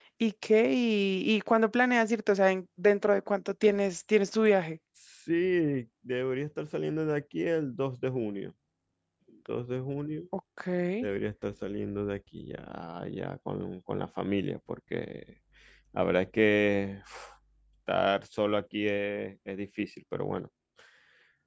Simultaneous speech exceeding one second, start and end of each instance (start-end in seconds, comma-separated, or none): none